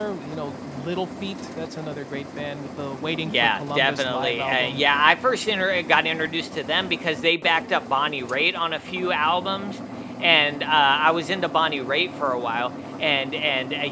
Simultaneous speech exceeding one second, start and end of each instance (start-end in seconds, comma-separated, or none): 3.2-4.8